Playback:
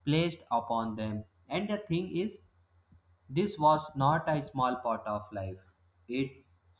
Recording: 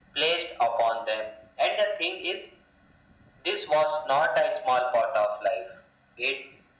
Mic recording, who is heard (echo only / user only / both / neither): echo only